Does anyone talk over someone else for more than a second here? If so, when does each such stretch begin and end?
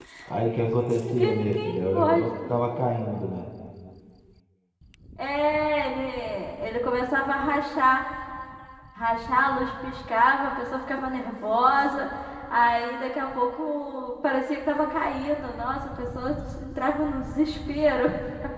1.1-2.5

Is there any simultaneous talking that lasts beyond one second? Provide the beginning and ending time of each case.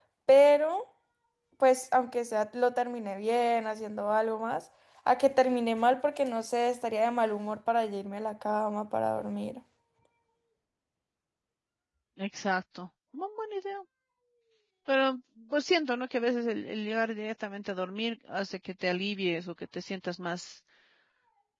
none

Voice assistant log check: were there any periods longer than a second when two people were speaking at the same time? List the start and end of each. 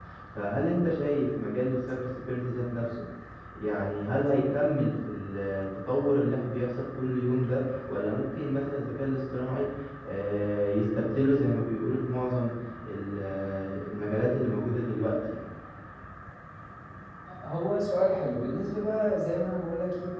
none

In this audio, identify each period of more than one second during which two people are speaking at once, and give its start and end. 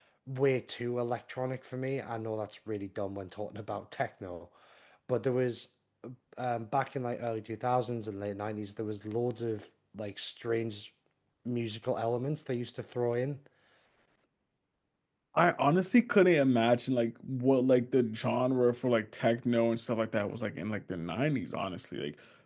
none

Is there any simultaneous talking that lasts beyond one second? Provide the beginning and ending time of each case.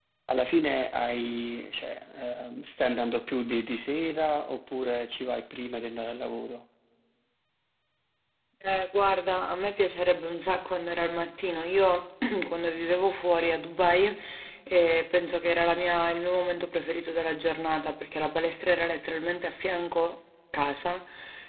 none

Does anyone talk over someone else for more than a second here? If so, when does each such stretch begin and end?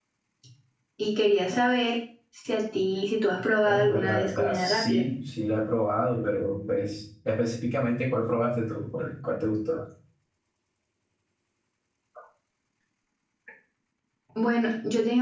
3.6-5.0

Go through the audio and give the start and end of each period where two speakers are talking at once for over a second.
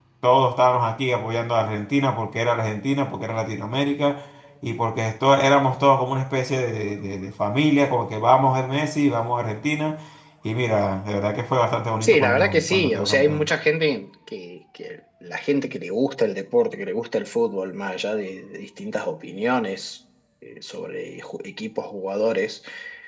12.0-13.5

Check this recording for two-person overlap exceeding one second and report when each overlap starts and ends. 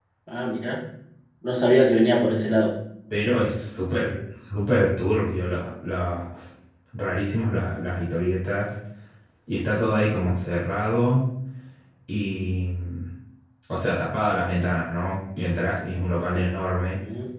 none

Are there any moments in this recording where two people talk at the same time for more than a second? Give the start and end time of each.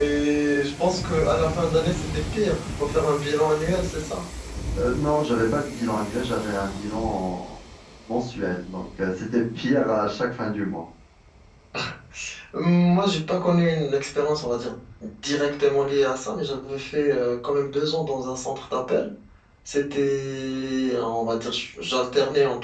none

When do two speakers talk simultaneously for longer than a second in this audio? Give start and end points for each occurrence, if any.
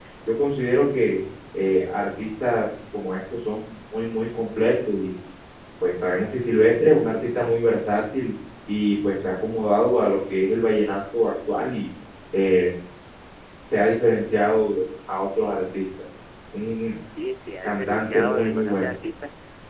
17.6-18.8

